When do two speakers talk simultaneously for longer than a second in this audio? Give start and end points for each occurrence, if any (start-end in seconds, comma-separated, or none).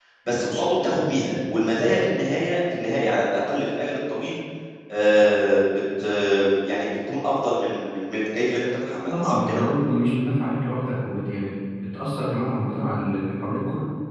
none